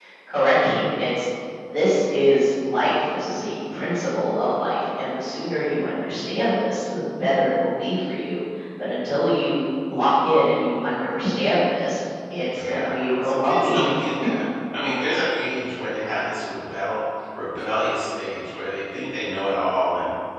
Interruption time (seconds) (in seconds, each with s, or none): 12.5 s